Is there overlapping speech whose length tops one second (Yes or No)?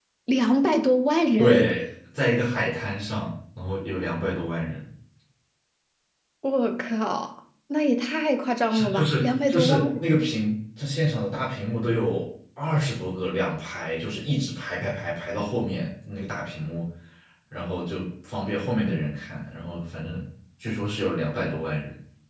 Yes